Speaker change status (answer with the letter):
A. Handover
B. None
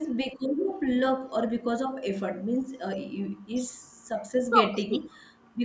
B